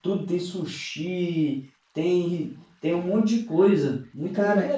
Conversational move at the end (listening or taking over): taking over